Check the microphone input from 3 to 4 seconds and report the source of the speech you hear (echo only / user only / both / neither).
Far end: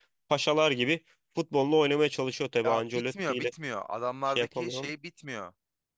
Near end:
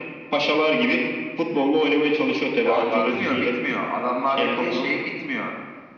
both